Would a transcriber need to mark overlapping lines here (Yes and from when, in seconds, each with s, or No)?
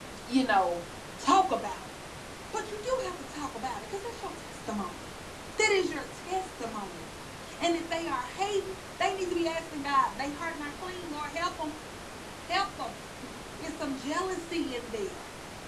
No